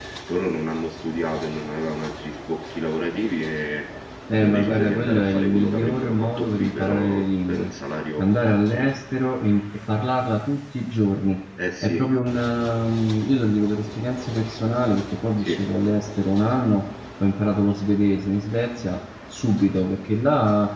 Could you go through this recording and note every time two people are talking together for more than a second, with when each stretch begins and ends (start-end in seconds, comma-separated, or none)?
4.3-7.7